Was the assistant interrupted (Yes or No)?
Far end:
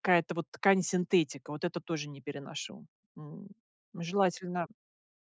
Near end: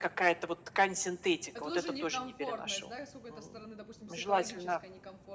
Yes